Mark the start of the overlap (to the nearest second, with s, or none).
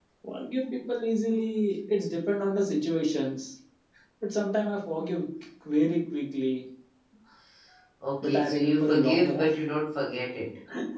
8 s